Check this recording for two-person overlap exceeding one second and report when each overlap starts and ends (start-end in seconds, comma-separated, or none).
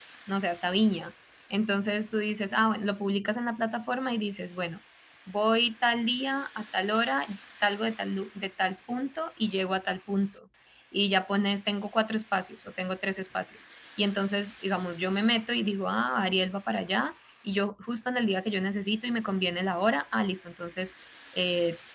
none